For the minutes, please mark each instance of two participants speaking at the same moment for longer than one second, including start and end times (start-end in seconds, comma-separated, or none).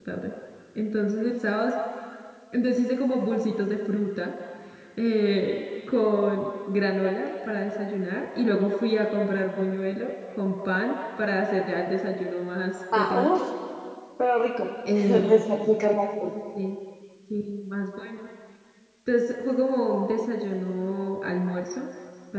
none